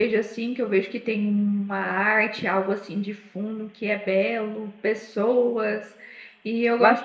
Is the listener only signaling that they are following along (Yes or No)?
No